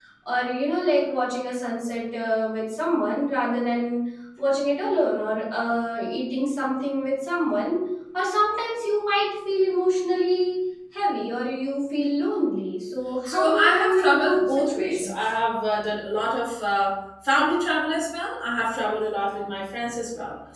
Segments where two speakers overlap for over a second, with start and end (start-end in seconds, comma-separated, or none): 13.2-15.1